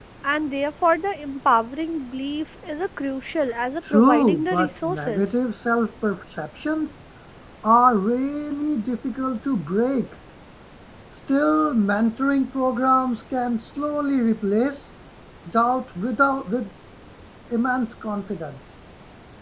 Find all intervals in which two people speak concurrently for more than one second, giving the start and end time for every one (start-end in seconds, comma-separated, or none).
3.9-5.4